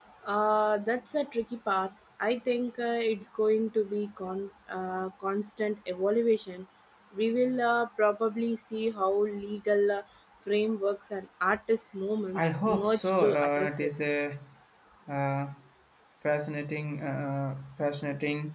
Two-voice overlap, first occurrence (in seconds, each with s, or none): 12.4 s